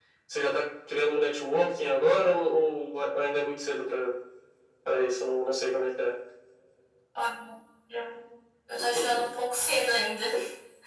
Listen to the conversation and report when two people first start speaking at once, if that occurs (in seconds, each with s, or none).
none